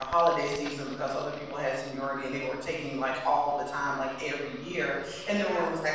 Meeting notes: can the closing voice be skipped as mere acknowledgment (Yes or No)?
Yes